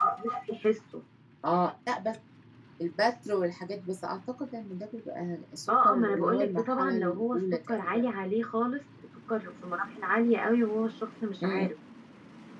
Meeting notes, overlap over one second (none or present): present